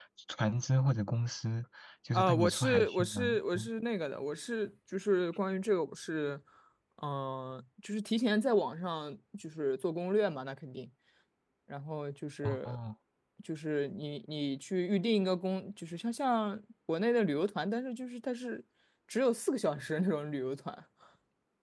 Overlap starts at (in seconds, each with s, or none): 2.1 s